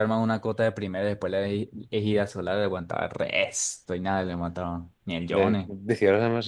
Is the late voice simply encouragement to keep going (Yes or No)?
No